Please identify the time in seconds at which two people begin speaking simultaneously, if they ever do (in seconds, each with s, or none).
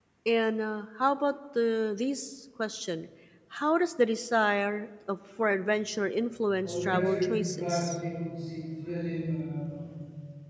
6.5 s